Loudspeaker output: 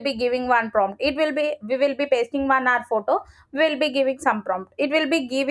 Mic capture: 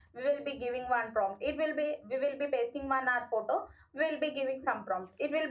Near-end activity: none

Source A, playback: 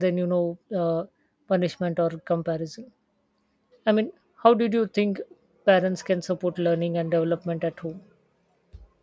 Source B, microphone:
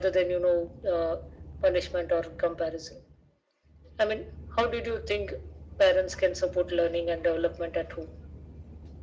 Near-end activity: none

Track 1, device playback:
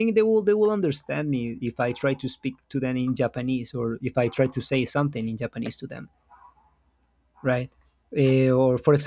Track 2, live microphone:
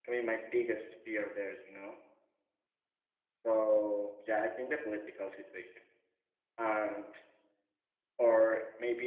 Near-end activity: present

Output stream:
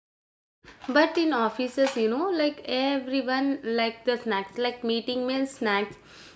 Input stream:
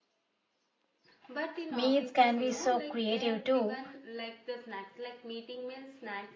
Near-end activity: present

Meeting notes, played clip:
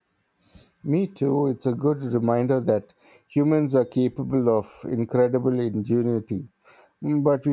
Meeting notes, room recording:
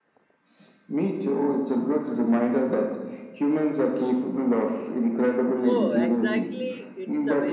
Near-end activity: present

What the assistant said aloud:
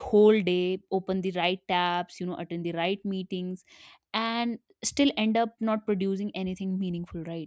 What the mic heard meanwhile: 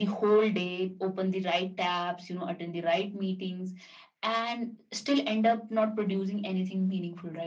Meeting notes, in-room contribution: none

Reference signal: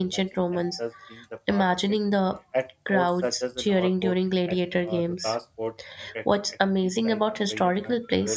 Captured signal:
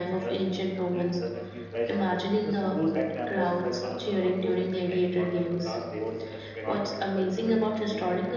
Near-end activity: present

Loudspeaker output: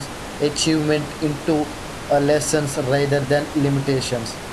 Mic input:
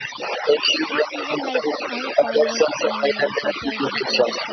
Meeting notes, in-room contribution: present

